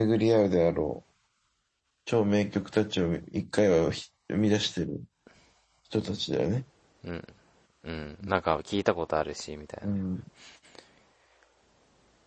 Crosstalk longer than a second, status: none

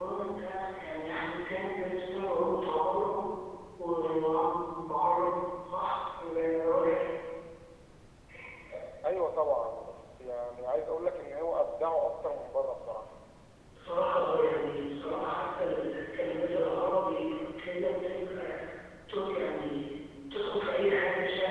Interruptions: none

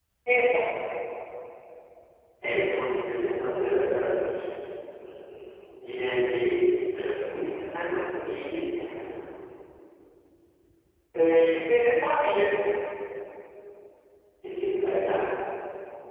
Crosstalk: none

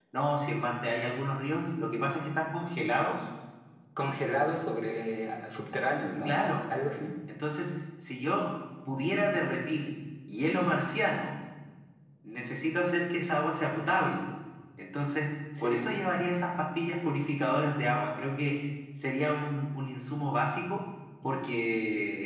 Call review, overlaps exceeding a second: none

